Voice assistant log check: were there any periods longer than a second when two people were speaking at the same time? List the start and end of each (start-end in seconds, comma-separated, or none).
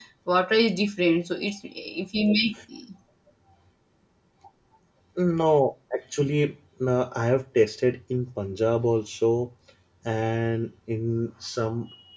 none